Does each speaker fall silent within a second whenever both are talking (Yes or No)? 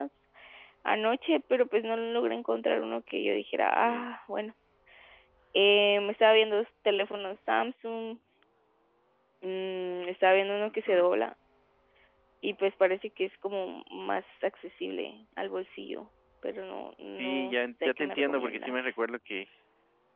No